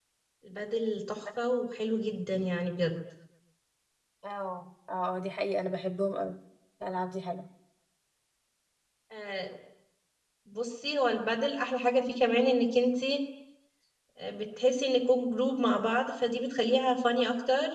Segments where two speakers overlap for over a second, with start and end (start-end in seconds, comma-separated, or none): none